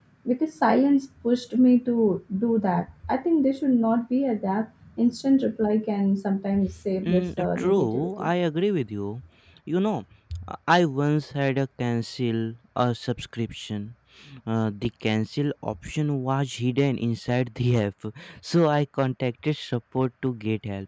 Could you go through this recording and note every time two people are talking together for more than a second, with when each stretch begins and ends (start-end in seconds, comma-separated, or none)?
7.0-8.3